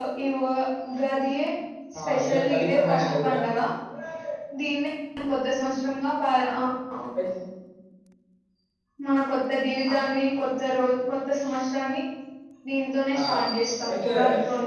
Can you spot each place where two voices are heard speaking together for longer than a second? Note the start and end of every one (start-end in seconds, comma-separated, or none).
2.0-3.4